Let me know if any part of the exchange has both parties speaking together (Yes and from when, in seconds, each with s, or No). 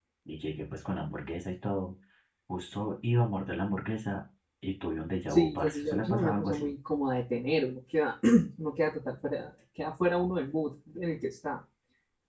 Yes, from 5.3 s